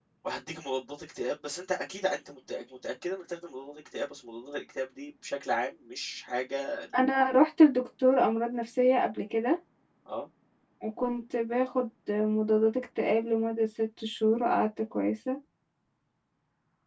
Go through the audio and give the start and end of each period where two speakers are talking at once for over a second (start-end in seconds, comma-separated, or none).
none